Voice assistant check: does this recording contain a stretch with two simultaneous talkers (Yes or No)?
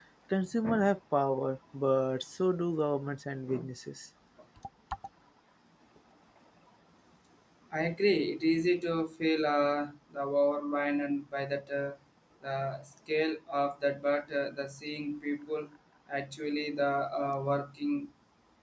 No